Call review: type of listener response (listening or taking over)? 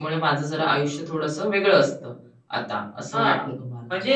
taking over